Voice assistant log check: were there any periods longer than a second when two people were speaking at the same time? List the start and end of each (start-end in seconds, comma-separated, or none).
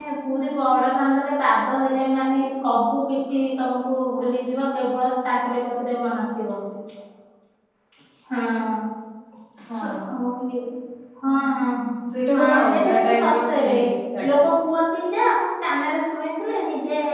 12.3-13.7